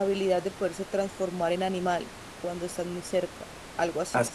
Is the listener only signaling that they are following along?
No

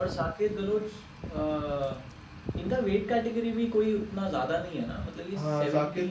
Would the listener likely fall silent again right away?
No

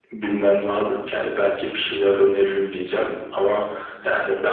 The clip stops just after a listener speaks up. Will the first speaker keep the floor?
No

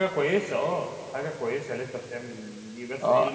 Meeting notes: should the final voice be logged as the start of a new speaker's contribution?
Yes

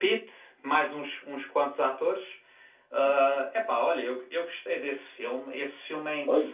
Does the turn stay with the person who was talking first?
Yes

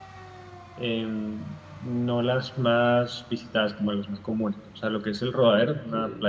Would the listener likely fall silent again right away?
Yes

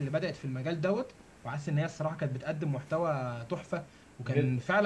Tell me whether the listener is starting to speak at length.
No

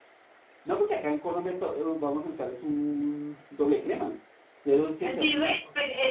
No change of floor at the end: No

